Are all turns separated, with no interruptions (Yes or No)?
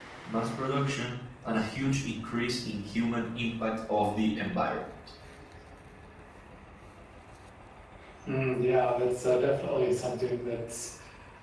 Yes